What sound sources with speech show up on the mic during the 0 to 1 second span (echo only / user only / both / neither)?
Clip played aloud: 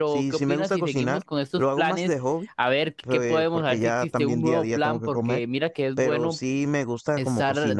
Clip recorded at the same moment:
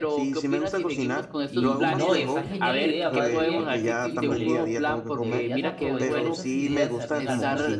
echo only